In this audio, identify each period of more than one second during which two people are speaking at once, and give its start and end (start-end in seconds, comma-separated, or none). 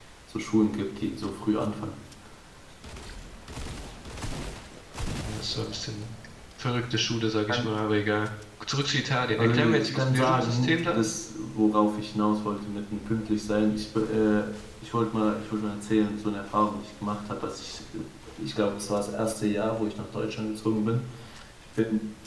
9.4-11.1